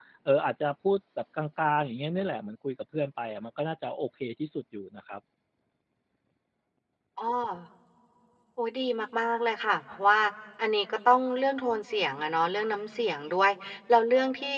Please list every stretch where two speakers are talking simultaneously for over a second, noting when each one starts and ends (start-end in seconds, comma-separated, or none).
none